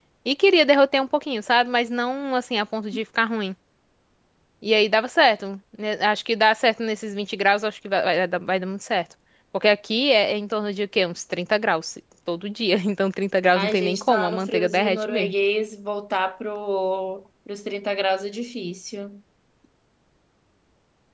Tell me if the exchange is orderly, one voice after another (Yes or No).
No